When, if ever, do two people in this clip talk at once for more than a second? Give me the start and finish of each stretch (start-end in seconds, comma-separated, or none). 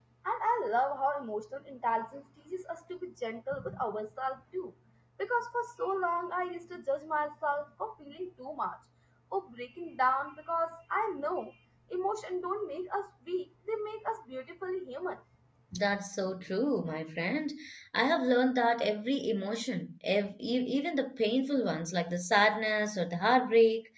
none